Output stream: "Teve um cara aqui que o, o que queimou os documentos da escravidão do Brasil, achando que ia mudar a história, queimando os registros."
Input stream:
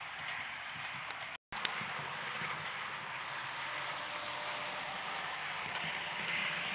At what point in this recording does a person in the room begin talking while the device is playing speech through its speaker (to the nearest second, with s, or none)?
none